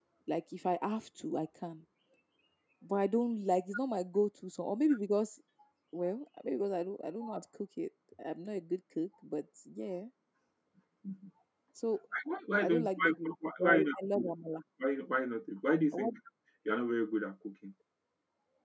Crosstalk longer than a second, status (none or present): present